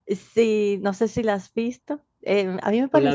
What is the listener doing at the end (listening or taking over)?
listening